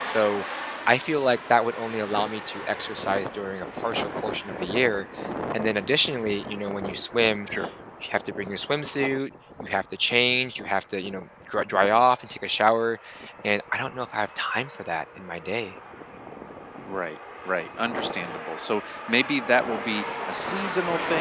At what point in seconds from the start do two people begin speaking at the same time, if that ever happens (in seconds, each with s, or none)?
none